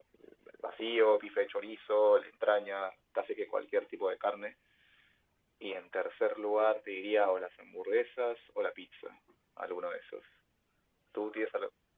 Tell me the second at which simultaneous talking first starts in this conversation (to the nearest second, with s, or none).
none